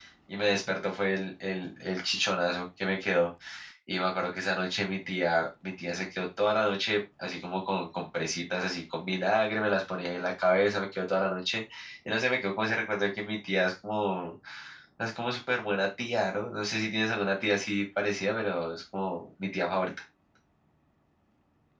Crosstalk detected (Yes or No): No